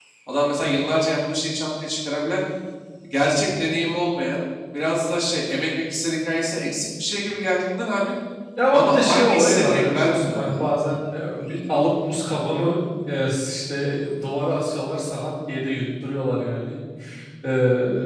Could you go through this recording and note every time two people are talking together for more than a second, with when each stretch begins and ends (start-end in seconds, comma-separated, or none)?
8.7-10.6